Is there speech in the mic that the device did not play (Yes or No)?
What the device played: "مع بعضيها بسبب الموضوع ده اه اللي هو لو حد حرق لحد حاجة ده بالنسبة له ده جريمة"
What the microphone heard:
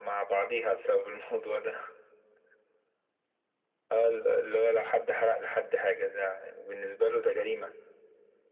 No